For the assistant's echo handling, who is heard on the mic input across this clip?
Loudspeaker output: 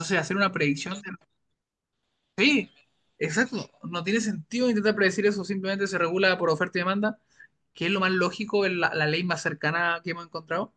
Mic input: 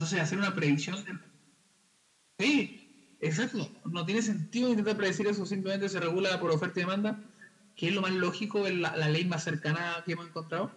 echo only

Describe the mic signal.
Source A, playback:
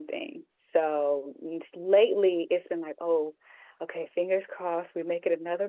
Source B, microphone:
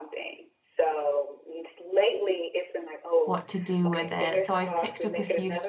both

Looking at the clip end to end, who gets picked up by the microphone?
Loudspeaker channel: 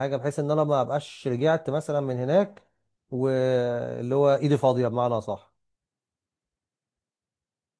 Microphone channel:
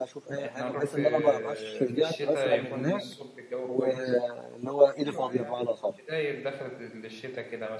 both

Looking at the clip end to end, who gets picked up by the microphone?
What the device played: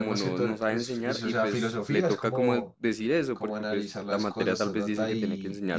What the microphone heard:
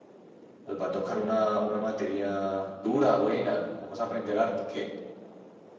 user only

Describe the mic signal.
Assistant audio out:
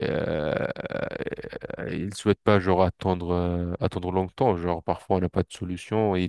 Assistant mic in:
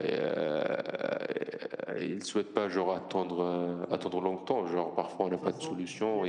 both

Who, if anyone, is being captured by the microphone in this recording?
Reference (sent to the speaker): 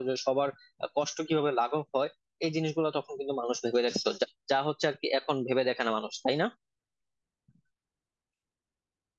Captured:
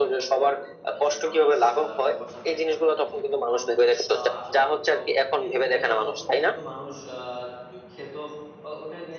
both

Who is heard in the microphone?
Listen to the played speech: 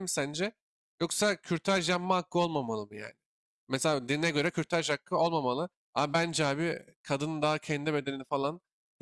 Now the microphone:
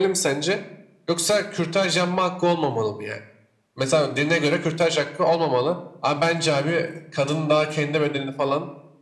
echo only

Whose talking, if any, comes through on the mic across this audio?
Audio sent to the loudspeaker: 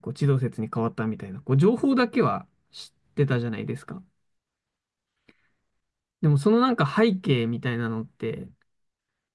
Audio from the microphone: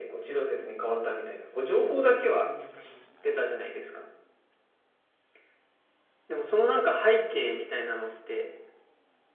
both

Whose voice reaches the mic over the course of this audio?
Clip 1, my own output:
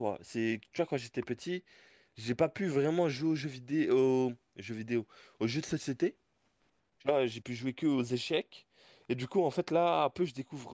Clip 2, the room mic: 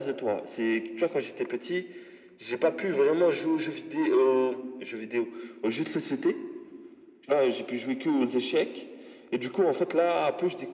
echo only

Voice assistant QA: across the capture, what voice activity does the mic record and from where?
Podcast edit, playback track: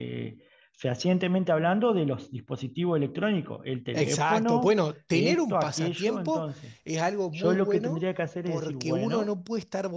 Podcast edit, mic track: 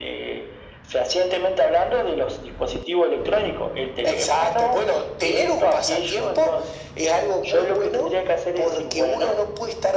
echo only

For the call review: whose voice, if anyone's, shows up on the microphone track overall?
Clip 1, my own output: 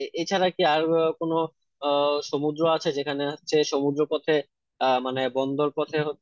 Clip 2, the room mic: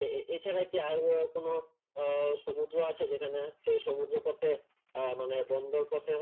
echo only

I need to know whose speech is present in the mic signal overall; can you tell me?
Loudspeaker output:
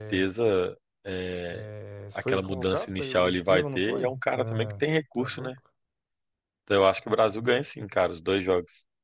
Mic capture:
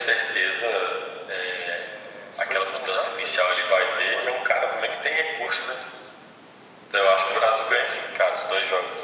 echo only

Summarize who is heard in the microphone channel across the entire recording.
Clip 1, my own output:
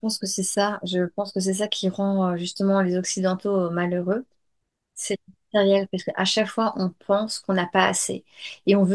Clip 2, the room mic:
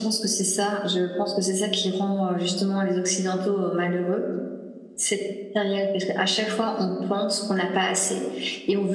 echo only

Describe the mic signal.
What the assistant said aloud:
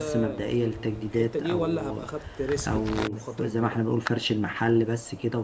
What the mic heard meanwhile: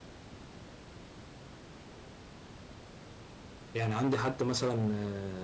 user only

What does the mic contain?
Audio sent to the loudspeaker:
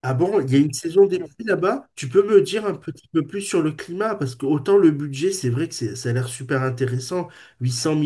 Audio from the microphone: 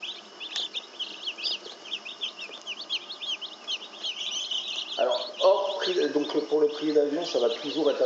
user only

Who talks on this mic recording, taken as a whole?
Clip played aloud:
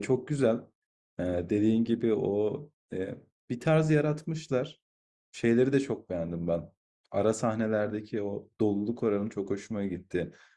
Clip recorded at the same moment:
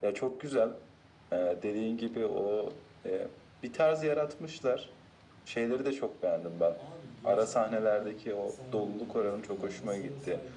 both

